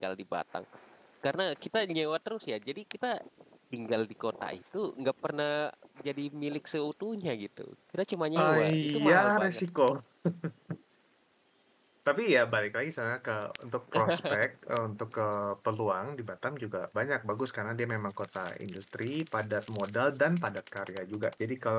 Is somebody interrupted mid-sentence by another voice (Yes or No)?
Yes